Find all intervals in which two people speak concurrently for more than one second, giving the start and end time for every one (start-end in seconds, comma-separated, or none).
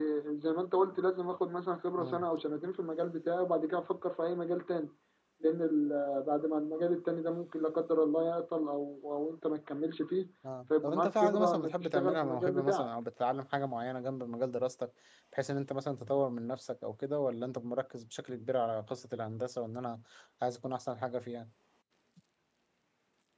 10.8-12.9